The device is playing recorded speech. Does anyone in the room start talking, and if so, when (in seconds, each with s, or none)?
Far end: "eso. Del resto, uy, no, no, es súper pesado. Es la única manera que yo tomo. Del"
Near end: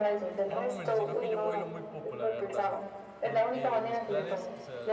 0.4 s